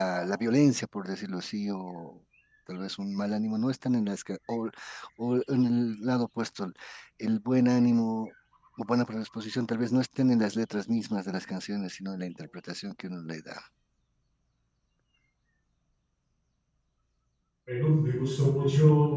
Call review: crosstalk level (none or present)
none